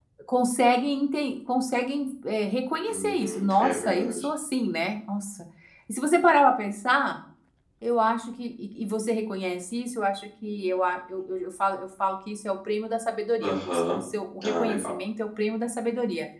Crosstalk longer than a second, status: present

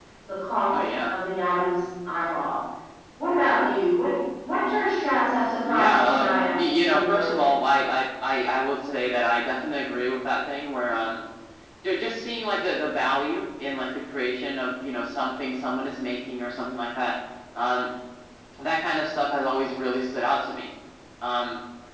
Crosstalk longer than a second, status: present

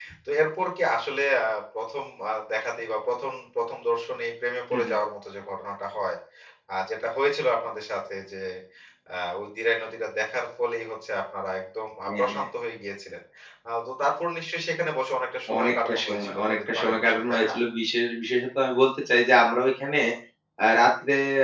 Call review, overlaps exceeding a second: present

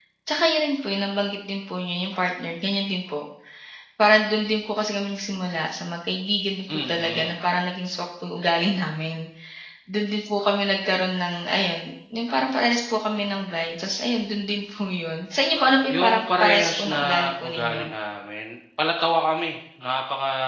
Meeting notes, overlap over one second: present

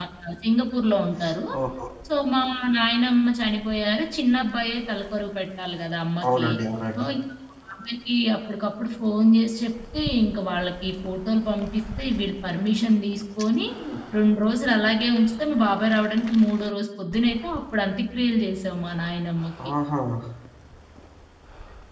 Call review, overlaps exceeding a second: none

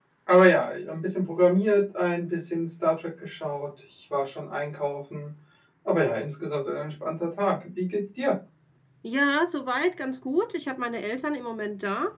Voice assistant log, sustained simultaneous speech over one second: none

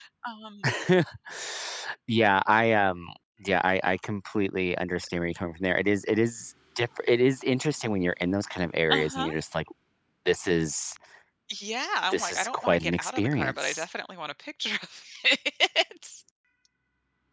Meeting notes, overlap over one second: present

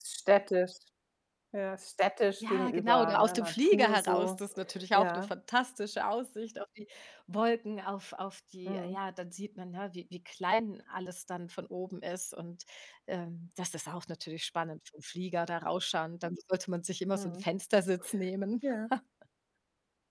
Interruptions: present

